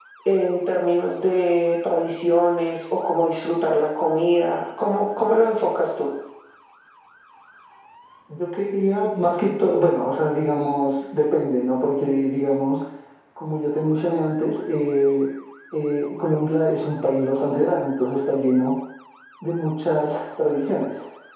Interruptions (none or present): none